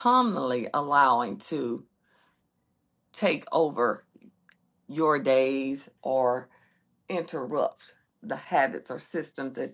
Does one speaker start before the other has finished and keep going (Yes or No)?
No